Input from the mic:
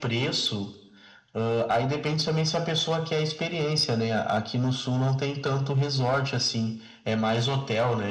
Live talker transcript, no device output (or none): none